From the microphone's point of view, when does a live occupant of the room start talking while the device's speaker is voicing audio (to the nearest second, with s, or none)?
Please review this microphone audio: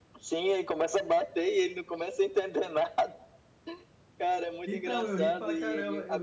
5 s